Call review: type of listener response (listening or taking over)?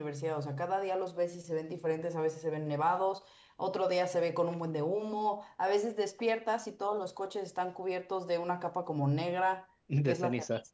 listening